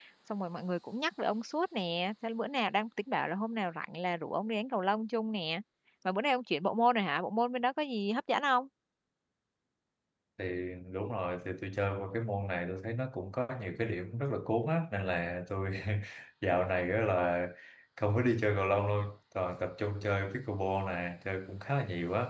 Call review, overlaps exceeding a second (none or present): none